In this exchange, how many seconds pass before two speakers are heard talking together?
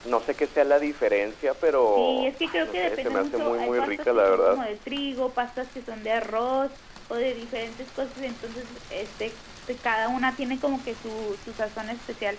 1.9 s

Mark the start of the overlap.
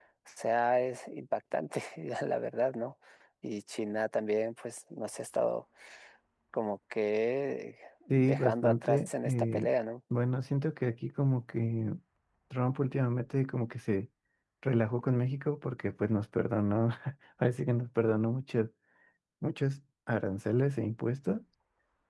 8.1 s

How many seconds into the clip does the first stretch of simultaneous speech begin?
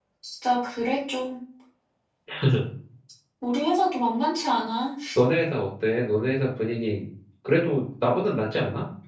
none

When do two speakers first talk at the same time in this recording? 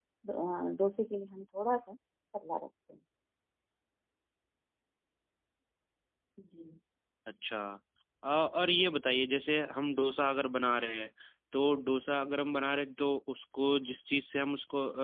none

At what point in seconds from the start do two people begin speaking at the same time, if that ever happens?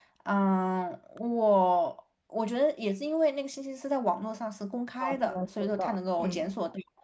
5.0 s

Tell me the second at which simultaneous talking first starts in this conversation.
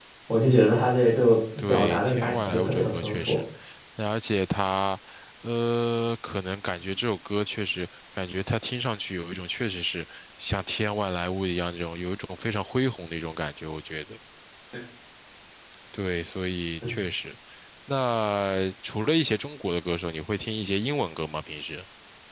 1.6 s

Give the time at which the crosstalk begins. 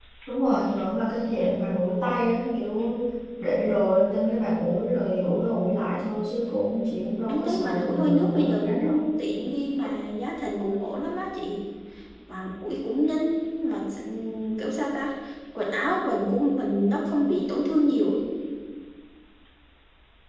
7.3 s

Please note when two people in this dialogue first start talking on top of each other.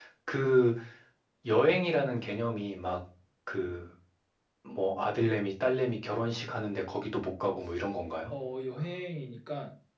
none

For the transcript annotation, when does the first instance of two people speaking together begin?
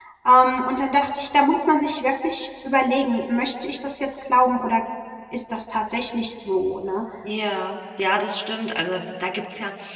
none

